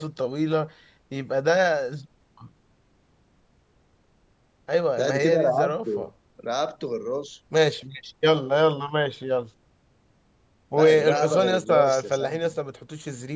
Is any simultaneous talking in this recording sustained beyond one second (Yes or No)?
Yes